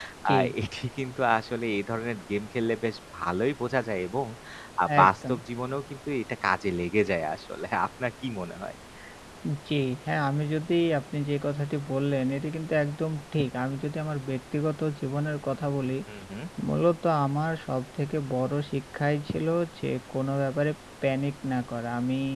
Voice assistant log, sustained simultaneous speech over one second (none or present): none